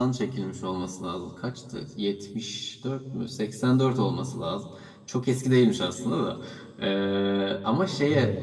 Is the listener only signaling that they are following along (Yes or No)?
Yes